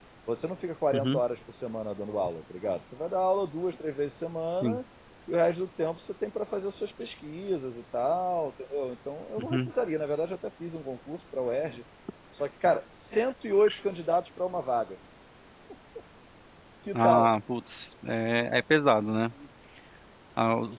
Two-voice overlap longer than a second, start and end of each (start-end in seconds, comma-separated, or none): none